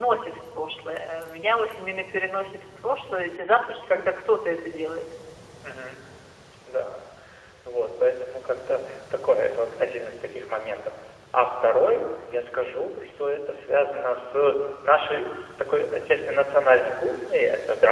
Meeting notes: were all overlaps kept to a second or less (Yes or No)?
Yes